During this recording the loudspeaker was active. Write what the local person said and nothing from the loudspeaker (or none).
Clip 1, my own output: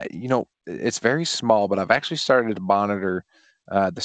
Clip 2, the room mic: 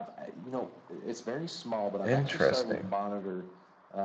Interesting.